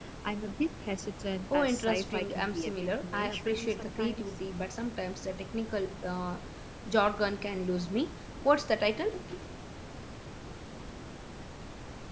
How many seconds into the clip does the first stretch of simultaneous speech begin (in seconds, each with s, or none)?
1.5 s